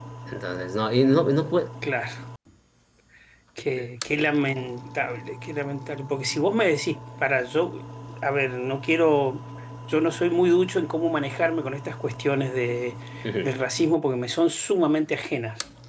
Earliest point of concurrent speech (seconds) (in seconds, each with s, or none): none